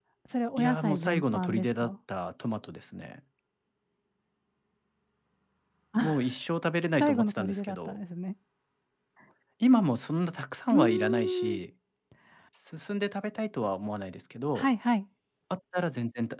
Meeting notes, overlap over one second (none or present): present